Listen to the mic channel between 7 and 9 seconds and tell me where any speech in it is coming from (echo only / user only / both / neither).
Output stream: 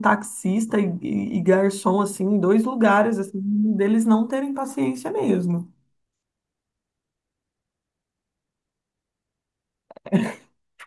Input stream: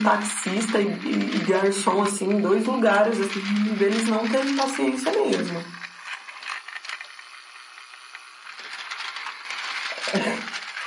neither